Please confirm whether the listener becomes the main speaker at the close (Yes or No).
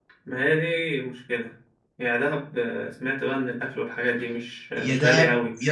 Yes